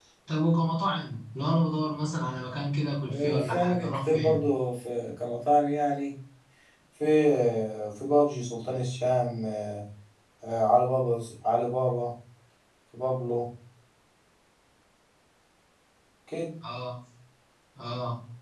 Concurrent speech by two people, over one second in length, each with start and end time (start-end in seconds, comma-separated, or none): 3.1-4.4